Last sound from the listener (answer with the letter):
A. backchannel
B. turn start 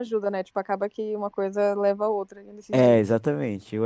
B